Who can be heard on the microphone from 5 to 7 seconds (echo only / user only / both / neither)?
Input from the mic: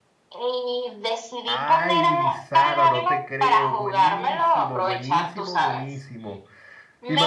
both